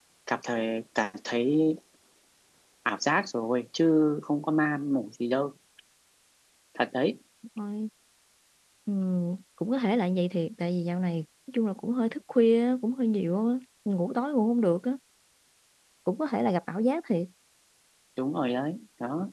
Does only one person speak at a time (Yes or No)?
Yes